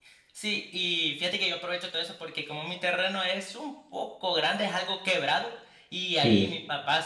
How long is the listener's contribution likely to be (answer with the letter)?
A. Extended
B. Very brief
B